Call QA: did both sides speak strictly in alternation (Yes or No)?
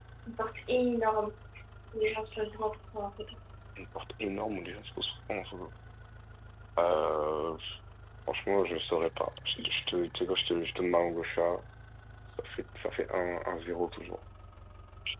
Yes